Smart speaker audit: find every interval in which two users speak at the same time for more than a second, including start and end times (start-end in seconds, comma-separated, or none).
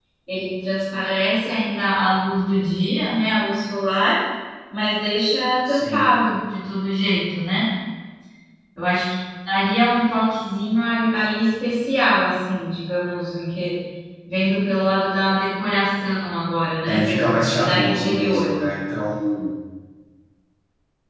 16.8-18.5